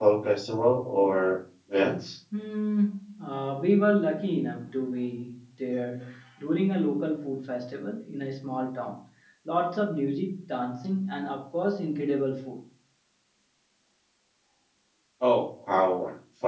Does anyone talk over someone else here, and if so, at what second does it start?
none

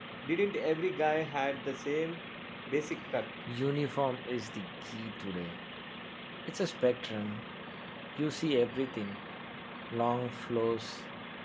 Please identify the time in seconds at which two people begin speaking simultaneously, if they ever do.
none

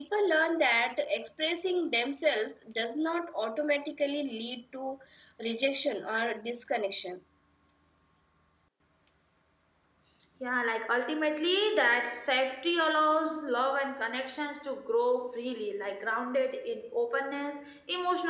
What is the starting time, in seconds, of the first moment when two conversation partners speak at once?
none

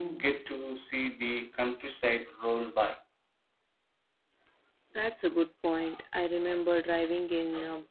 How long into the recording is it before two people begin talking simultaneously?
none

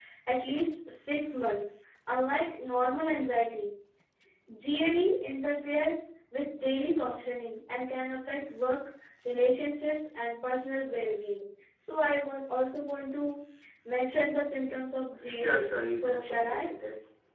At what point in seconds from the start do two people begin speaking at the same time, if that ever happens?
15.1 s

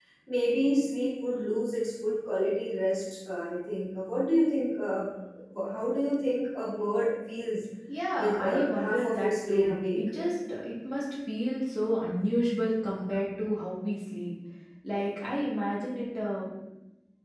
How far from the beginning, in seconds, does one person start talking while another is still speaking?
8.2 s

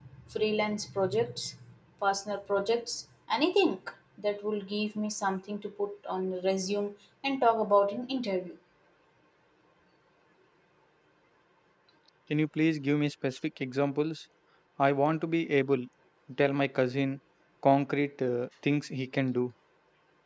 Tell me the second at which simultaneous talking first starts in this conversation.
none

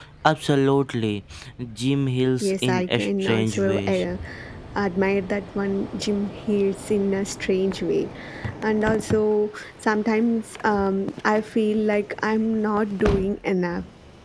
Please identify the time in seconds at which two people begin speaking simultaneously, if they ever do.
2.4 s

